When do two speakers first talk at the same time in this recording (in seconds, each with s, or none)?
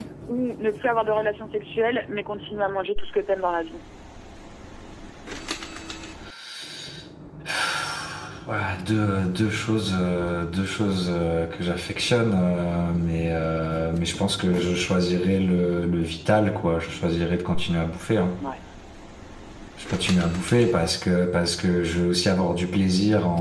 none